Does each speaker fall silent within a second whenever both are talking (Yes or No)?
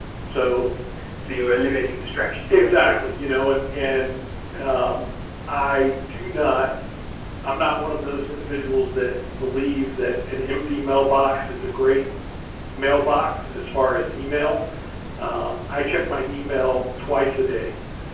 Yes